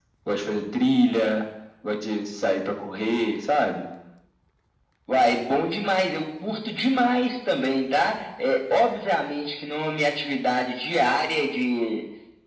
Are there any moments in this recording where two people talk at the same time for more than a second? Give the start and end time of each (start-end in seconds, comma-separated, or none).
none